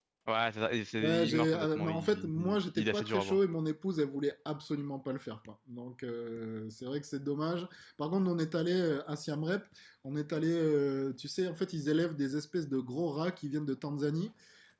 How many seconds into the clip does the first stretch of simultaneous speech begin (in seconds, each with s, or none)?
1.0 s